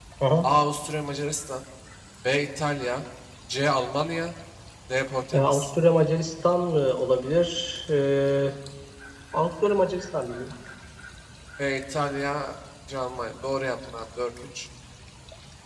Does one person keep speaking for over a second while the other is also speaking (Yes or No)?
No